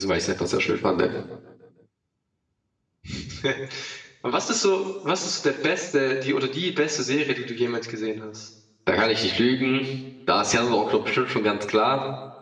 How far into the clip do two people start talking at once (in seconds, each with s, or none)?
none